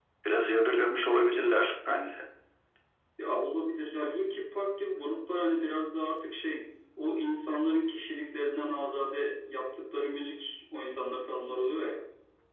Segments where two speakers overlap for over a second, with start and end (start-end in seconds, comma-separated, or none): none